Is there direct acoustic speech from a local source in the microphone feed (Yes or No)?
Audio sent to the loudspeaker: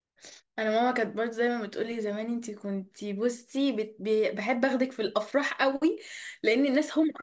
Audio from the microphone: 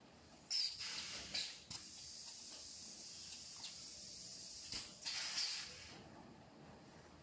No